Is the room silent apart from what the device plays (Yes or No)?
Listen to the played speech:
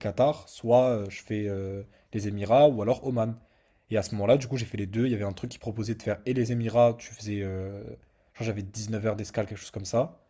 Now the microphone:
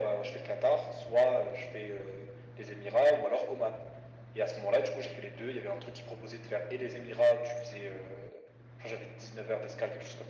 Yes